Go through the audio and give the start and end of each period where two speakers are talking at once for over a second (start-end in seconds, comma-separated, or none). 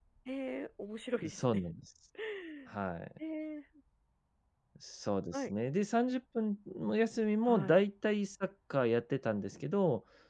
none